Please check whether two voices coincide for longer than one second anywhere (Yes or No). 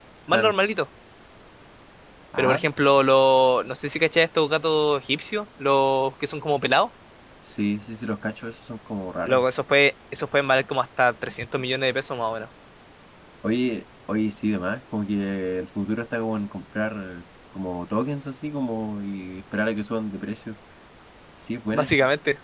No